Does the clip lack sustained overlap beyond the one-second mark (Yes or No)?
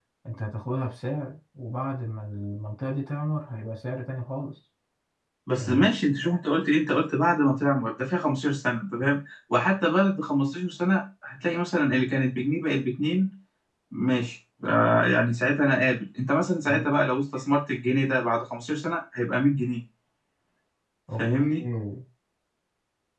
Yes